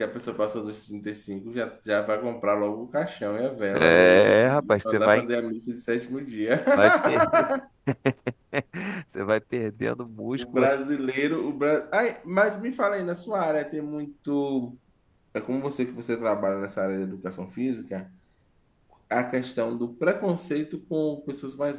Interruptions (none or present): present